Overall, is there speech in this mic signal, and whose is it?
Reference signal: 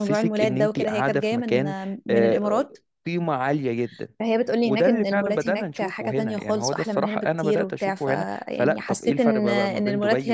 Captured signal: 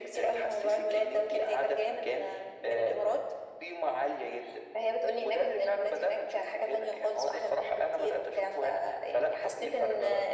echo only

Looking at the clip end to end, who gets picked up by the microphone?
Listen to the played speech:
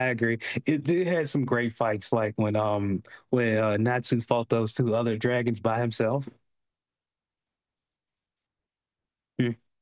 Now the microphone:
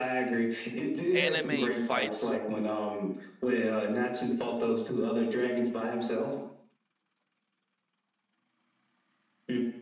both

